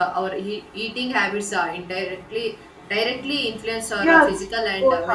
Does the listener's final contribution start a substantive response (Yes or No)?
Yes